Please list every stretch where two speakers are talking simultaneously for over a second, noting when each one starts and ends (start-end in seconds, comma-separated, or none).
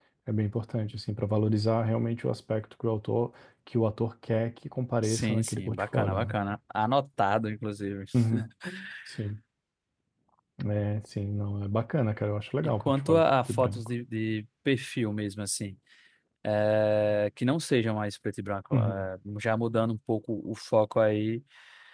5.0-6.4, 12.6-13.9